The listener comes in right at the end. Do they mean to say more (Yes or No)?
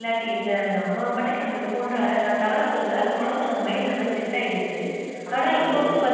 No